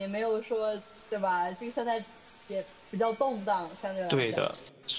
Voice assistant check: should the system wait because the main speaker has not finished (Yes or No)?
No